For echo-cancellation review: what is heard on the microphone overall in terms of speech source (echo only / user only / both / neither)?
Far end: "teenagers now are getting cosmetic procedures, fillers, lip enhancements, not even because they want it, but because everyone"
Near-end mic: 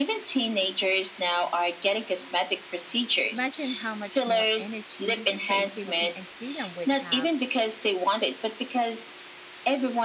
both